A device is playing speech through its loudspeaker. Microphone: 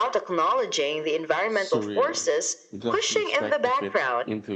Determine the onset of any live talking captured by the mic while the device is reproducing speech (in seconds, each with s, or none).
1.5 s